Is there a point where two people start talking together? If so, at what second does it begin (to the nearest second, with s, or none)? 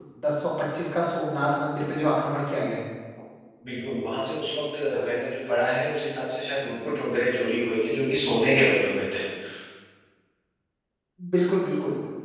none